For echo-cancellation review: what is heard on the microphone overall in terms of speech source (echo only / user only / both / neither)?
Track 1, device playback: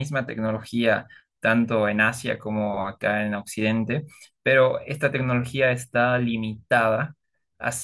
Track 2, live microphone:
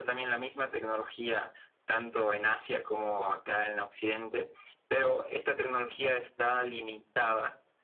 echo only